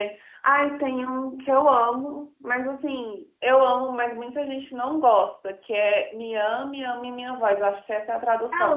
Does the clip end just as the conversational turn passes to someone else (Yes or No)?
Yes